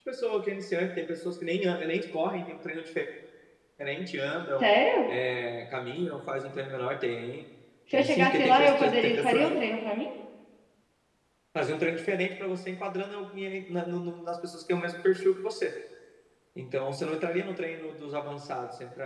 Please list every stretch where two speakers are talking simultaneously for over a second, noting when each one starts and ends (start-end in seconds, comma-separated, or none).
7.9-9.6